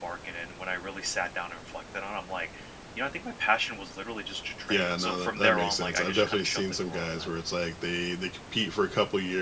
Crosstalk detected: Yes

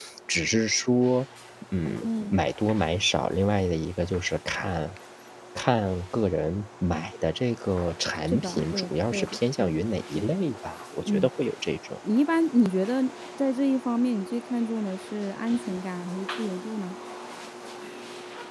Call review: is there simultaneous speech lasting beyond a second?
Yes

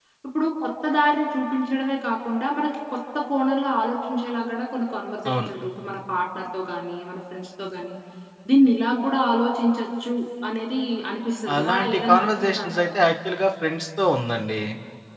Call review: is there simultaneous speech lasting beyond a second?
Yes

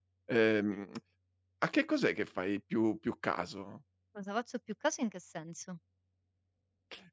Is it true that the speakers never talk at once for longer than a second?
Yes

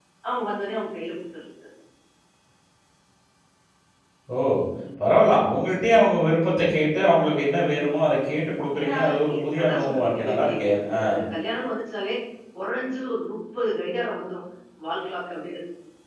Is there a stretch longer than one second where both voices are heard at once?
Yes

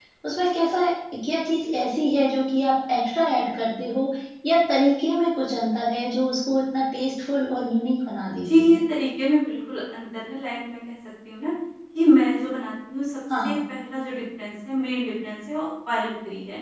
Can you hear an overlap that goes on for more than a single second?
No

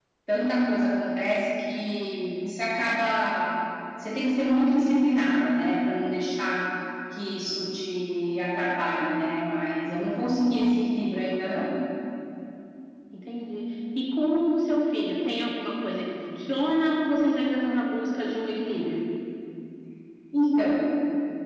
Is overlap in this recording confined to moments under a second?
Yes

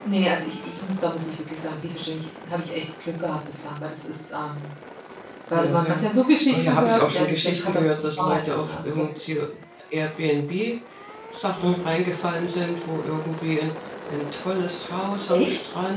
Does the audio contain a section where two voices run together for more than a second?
Yes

